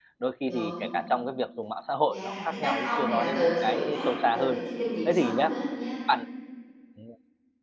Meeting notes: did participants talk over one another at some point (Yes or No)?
Yes